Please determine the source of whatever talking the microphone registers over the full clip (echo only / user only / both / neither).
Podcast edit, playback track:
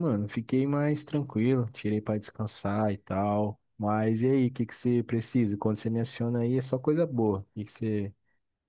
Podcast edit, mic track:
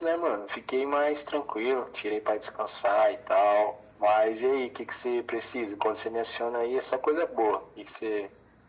echo only